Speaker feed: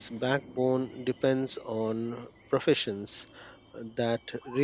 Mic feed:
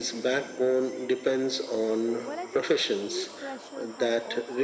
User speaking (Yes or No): Yes